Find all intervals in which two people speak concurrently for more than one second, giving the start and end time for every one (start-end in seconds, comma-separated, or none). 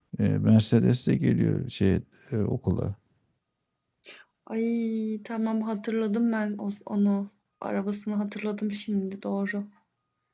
none